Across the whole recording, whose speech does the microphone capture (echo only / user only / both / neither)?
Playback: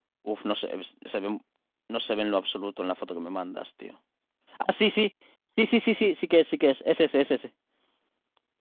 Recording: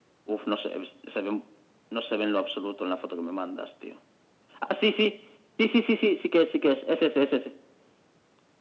echo only